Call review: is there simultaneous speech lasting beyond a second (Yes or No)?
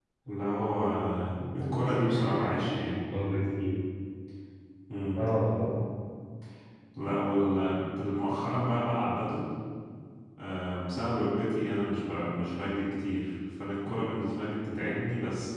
Yes